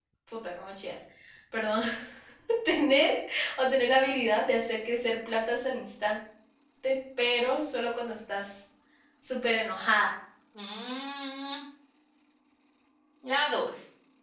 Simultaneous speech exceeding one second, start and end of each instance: none

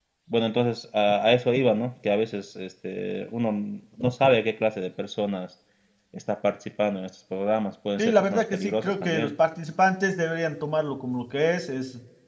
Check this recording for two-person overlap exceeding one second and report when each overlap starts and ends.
8.0-9.3

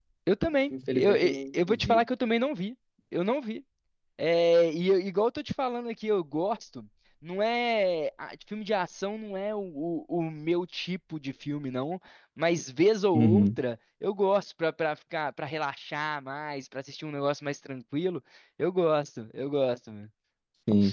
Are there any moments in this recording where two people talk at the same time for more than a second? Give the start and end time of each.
0.7-2.0

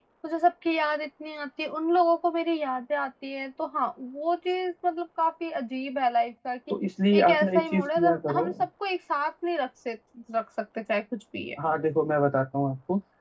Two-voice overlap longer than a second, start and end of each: 7.2-8.5

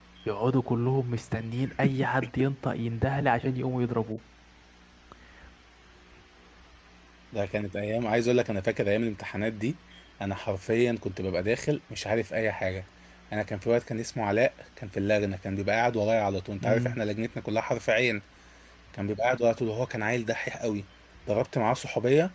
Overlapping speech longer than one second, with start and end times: none

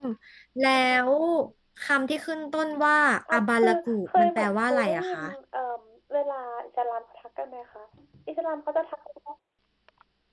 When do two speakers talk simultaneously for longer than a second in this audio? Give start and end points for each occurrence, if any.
3.3-5.2

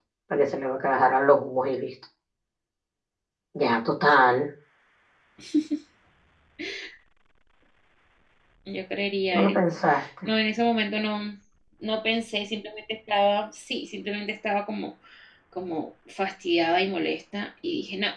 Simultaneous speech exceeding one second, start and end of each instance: none

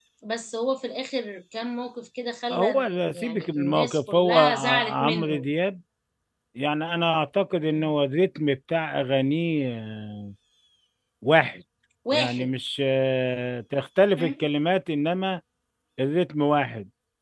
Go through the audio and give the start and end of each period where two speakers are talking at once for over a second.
2.5-5.5

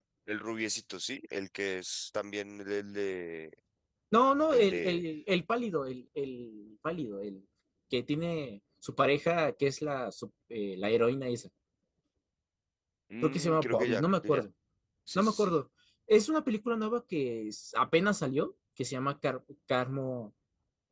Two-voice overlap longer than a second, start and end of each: 13.2-14.4

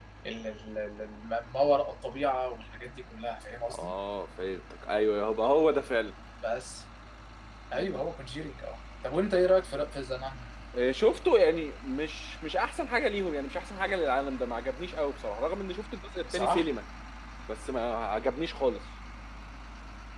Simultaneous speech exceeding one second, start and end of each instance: none

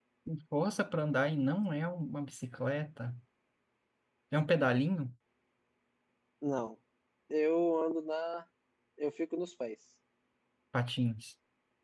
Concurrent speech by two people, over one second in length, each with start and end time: none

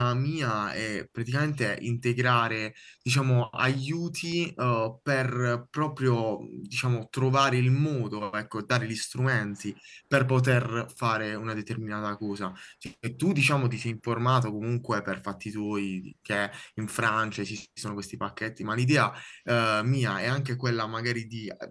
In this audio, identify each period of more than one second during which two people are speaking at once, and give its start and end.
none

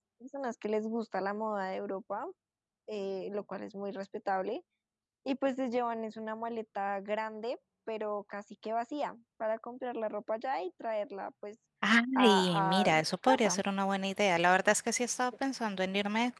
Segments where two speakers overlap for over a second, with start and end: 12.2-13.6

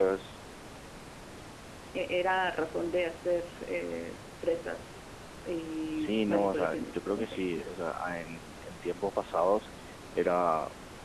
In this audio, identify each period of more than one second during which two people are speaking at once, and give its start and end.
5.9-7.4

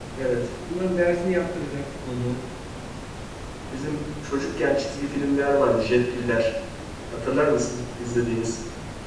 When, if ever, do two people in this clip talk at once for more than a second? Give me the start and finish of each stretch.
none

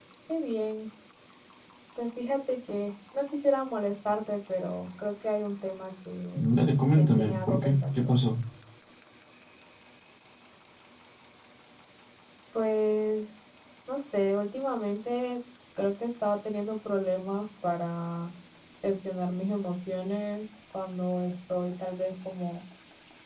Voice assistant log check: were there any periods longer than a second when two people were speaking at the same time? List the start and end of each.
6.9-8.2

